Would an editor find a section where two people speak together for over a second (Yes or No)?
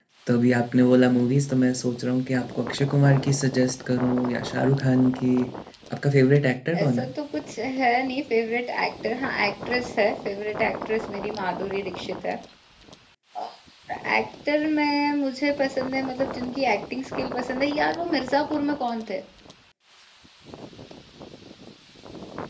No